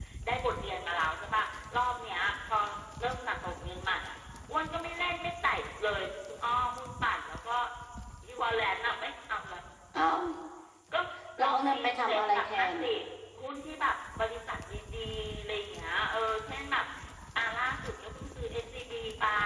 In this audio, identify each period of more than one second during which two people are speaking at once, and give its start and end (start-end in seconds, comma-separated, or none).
11.4-12.9